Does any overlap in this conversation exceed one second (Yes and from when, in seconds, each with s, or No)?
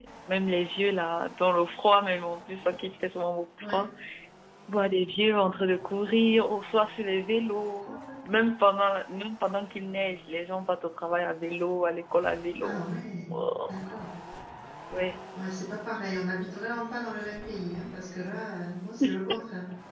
No